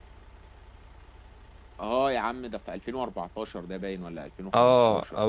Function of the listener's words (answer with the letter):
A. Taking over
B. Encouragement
A